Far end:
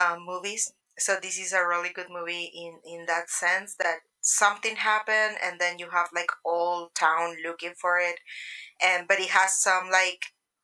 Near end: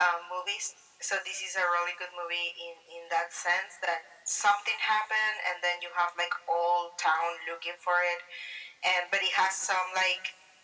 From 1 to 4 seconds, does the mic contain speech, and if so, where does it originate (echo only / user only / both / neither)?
echo only